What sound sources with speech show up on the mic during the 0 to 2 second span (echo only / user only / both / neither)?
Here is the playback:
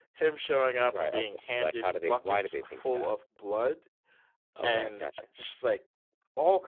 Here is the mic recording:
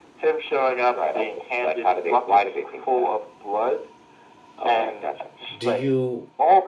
echo only